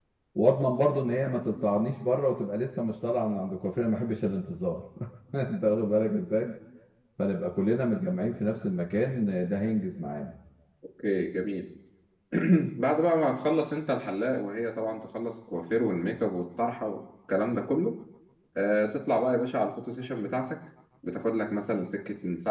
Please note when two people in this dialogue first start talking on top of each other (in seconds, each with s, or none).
none